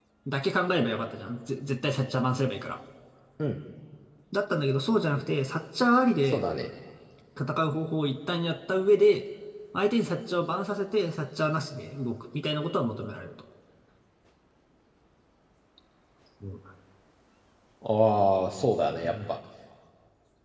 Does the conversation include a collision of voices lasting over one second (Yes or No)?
No